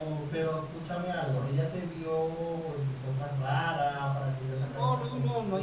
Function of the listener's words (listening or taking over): taking over